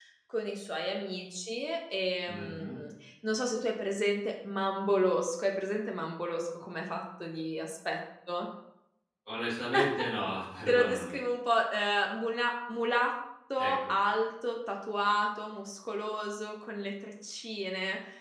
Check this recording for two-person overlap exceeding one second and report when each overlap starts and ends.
none

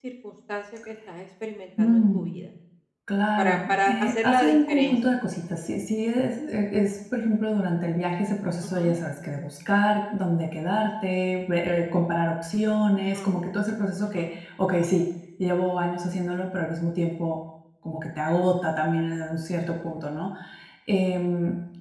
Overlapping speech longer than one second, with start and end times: 3.4-5.0

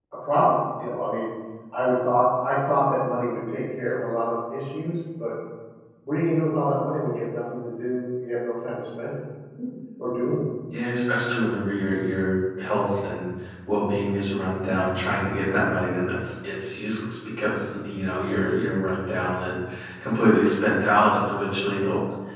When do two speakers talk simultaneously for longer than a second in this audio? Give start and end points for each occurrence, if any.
none

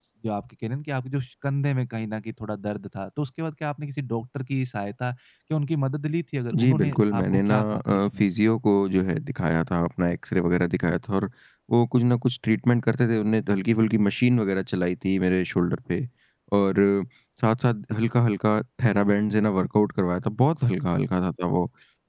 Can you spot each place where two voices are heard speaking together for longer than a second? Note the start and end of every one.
6.6-8.3

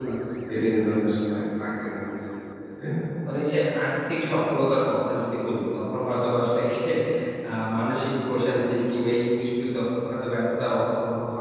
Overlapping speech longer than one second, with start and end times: none

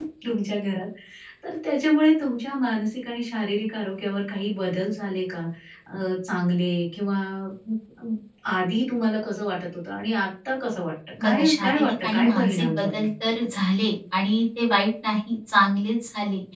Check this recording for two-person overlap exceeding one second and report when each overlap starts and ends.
11.2-13.0

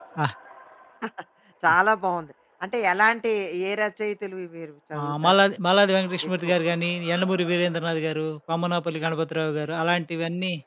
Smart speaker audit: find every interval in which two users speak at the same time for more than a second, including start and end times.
none

